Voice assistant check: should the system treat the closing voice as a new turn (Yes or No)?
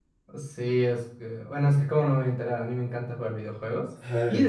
No